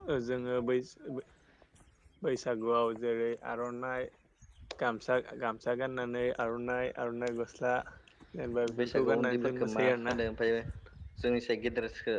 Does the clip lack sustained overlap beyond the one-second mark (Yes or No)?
No